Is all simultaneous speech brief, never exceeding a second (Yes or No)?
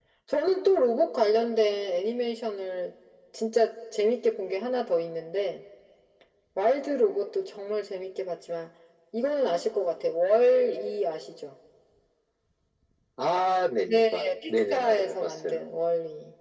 No